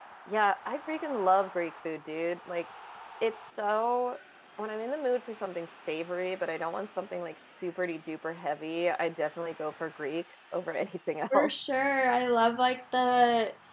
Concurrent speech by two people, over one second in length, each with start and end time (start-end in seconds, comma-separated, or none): none